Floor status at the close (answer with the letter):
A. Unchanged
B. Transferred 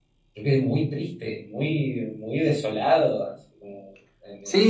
B